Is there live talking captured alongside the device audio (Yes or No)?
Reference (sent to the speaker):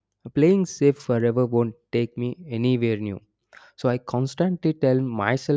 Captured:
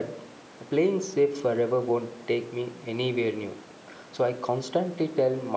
No